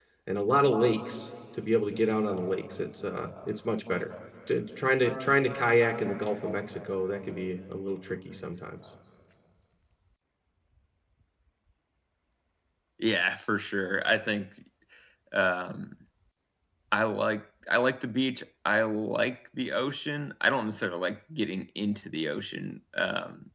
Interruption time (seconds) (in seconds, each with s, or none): none